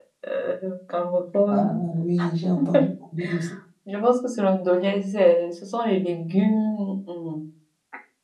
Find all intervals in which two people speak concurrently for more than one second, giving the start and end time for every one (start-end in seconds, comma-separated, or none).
none